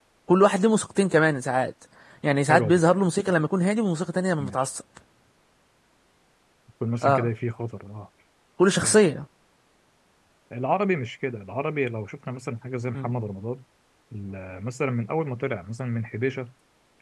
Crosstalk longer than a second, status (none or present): none